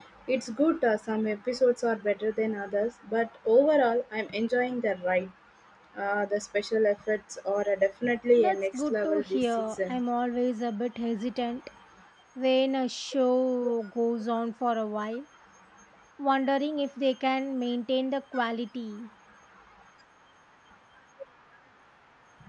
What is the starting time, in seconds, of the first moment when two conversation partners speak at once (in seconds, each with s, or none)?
8.4 s